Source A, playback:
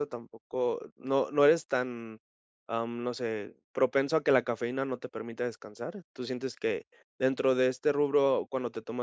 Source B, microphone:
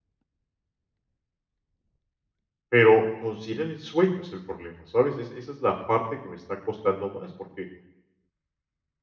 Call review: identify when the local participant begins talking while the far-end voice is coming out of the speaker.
2.7 s

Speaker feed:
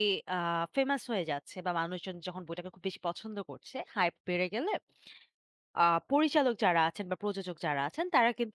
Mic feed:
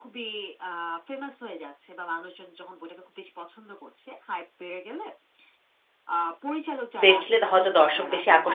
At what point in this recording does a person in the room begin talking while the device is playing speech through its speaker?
7.0 s

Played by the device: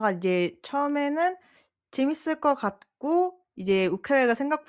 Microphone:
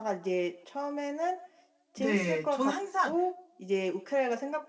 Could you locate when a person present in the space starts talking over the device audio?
2.0 s

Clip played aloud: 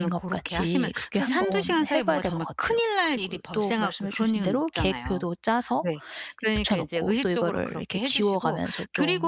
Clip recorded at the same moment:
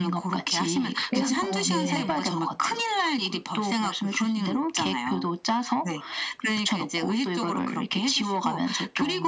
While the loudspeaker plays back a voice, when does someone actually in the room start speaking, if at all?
1.2 s

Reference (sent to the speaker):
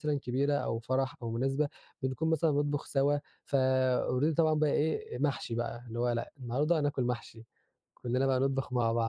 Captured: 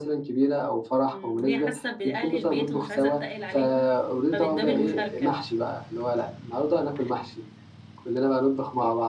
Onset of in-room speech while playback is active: 1.1 s

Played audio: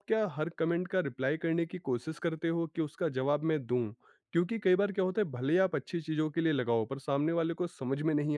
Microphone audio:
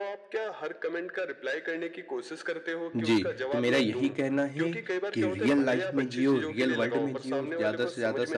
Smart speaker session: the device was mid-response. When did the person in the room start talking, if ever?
3.0 s

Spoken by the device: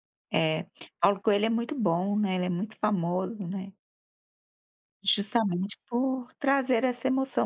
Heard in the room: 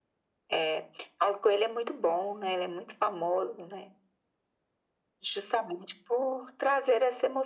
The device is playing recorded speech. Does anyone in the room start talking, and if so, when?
none

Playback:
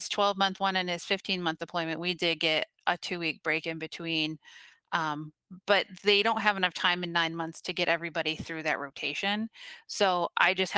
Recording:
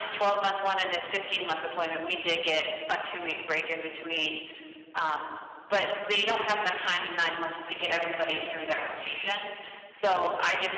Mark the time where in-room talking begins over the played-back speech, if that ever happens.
none

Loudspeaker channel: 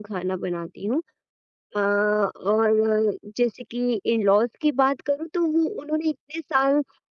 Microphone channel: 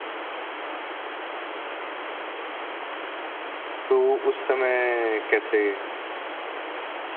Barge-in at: 3.9 s

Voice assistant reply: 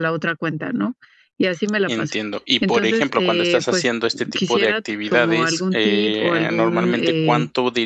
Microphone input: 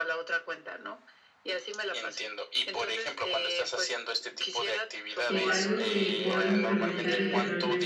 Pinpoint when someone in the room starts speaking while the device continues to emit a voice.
5.3 s

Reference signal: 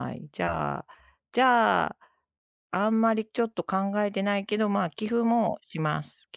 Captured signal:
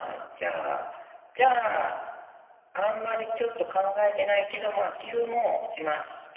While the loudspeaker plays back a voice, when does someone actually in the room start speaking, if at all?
none

